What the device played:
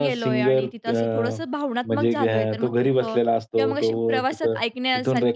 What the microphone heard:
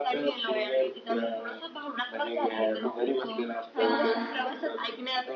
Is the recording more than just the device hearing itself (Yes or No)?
Yes